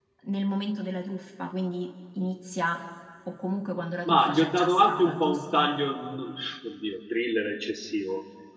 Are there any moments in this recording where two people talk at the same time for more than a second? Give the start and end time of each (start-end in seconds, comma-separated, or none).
4.0-5.7